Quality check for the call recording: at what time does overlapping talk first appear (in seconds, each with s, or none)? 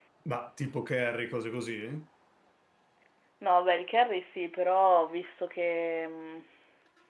none